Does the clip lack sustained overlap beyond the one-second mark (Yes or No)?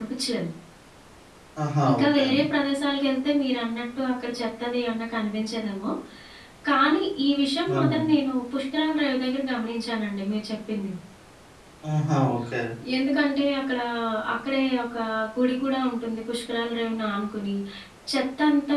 Yes